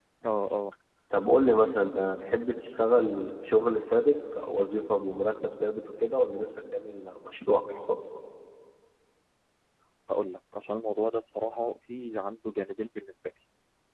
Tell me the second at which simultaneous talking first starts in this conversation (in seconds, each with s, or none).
none